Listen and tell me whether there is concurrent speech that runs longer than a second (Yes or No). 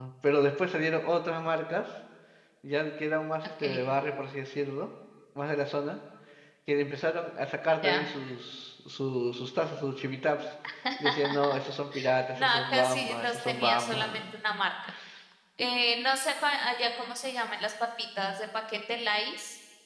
Yes